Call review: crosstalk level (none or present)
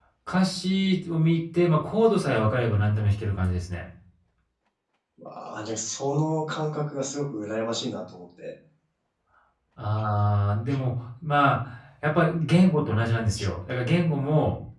none